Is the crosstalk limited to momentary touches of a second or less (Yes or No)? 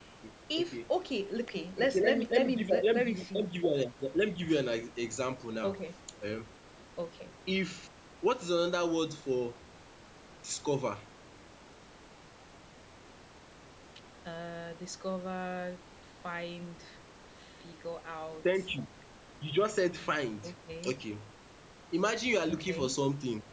No